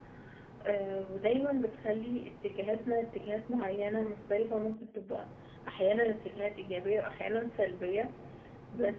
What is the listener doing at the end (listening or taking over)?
listening